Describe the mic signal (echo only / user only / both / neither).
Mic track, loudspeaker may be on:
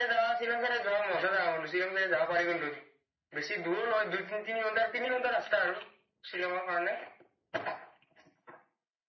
echo only